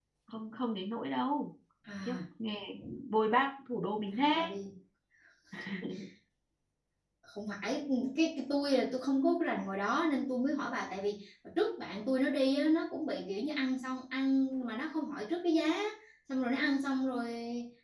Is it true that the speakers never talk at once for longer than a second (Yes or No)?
Yes